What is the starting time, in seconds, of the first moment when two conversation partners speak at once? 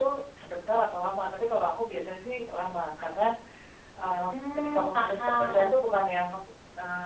4.3 s

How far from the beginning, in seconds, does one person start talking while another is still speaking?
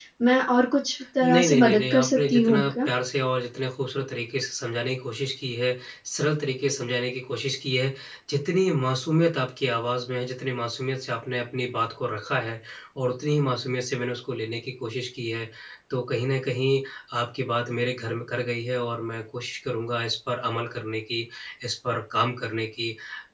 1.2 s

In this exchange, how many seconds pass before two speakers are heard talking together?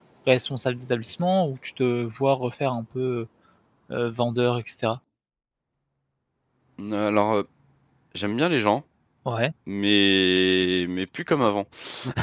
none

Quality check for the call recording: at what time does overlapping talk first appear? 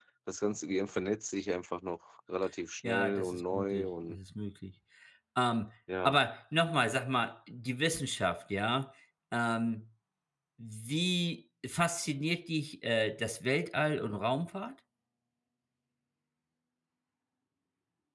2.8 s

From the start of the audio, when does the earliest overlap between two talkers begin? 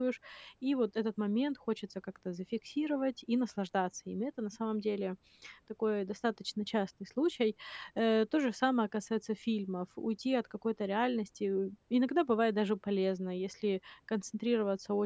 none

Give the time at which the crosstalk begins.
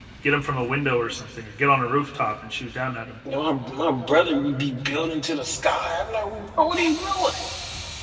none

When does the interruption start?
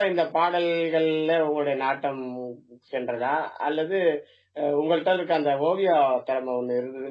none

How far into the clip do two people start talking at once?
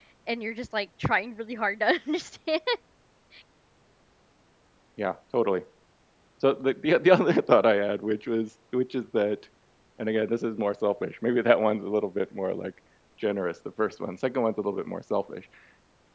none

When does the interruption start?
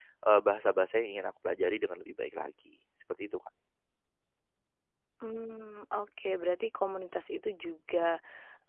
none

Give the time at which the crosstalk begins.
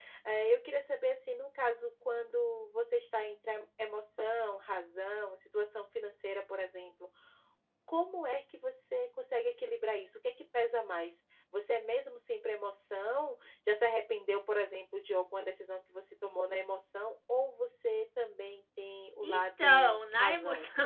19.2 s

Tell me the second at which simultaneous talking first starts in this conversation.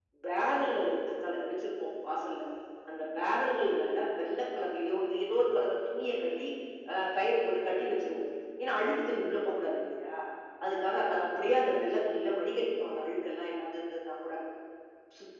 none

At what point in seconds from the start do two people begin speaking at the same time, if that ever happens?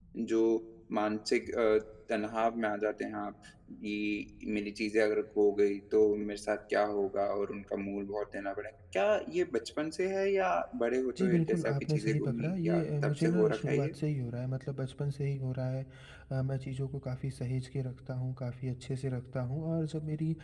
11.2 s

